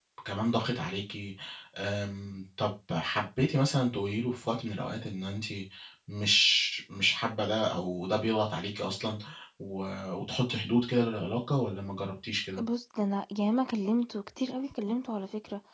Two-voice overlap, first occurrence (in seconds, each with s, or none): none